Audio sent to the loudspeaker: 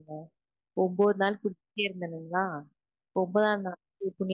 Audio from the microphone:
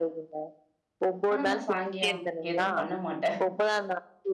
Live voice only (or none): ஆனா நா சாயங்கியம் எதுவு பண்ண மாட்ட